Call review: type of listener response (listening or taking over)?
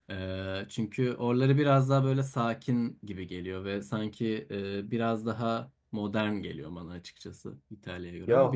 taking over